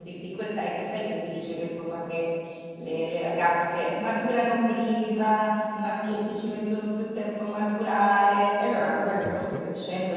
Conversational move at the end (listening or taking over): listening